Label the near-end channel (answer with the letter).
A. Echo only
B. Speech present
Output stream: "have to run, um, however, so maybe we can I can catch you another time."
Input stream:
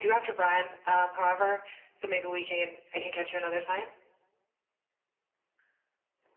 A